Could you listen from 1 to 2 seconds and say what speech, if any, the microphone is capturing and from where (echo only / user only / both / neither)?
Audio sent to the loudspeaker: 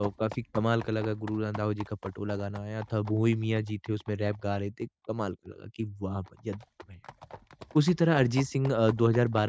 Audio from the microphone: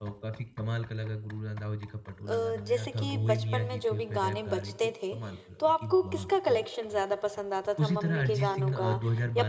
echo only